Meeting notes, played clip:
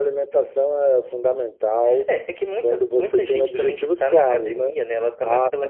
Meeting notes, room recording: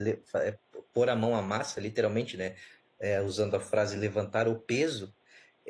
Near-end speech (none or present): present